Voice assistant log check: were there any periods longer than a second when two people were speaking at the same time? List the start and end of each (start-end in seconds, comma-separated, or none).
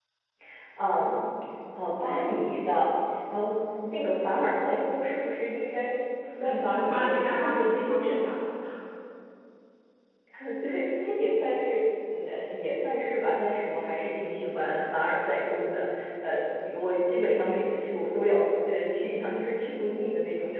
6.4-8.2